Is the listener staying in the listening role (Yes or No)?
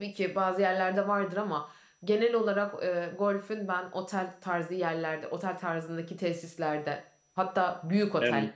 Yes